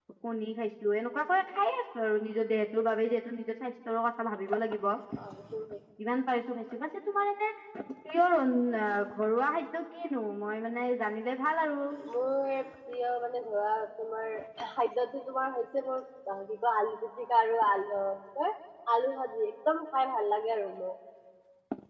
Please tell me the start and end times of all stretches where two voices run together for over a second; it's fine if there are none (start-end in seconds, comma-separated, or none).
none